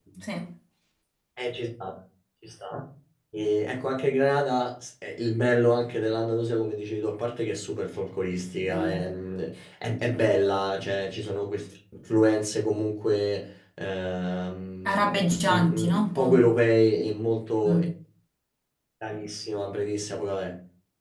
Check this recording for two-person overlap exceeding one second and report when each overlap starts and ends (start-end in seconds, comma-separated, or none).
14.9-16.4